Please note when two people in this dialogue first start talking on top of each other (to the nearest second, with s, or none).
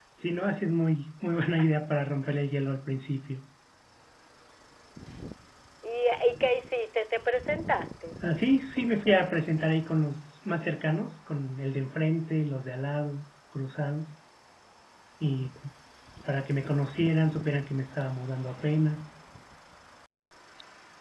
none